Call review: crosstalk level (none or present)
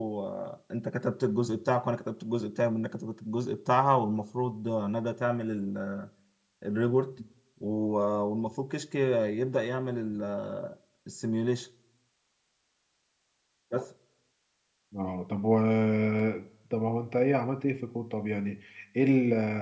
none